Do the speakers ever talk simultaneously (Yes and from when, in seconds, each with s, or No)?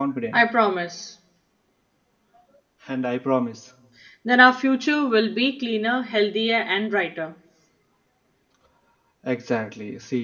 No